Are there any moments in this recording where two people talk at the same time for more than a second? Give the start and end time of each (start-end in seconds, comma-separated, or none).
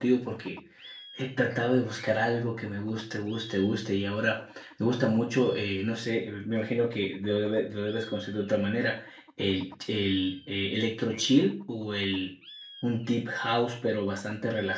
none